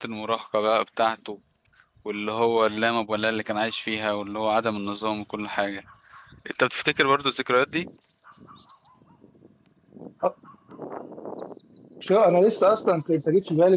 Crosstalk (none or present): none